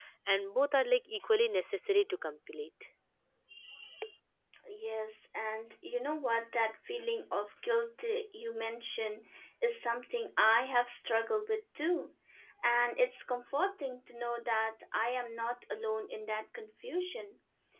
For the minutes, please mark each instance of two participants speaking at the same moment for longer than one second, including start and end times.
none

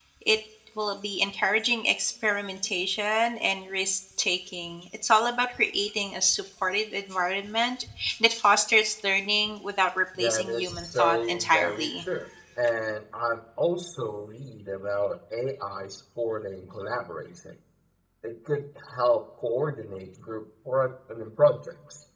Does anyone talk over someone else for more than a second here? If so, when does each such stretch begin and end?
10.2-12.0

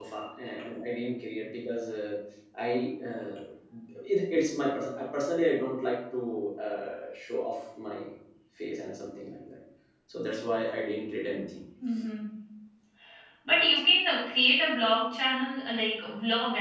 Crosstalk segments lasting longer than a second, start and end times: none

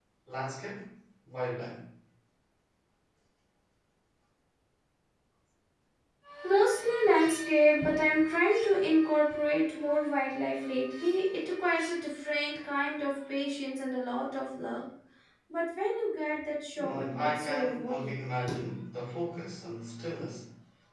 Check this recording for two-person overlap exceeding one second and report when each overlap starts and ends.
16.8-18.2

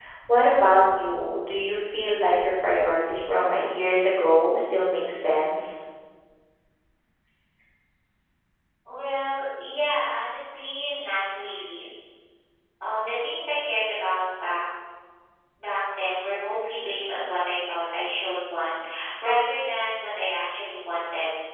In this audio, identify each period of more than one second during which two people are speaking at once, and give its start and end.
none

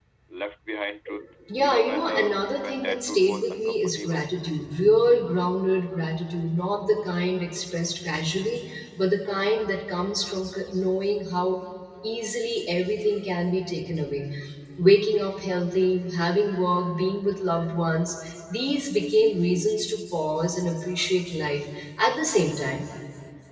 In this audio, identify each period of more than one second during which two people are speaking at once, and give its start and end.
1.6-4.3

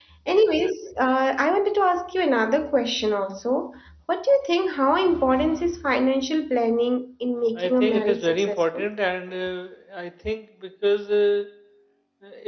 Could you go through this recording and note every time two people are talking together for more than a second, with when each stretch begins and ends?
7.6-8.9

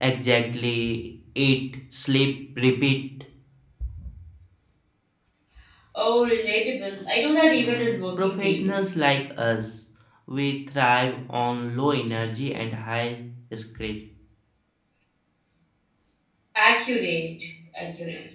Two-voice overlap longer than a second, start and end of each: 7.5-8.9

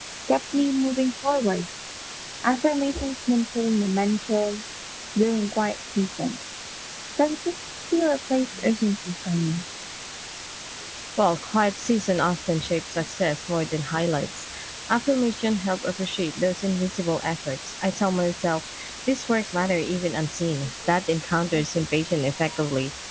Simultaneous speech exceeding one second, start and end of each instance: none

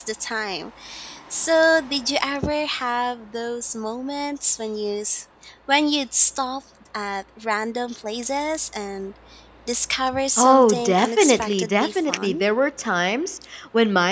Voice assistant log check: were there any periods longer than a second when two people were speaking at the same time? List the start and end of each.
10.4-12.4

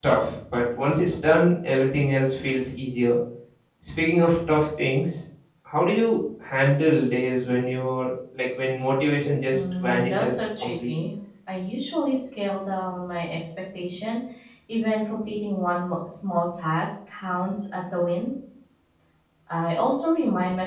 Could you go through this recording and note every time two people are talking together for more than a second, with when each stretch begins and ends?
9.5-10.9

